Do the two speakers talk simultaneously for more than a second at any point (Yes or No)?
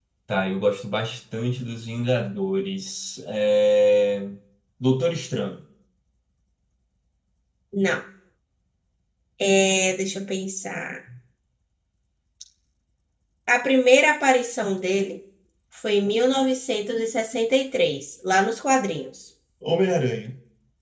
No